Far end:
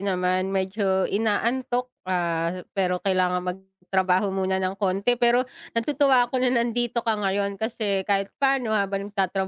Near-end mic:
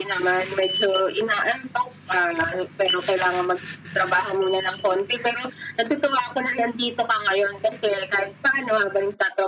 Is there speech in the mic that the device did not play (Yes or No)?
No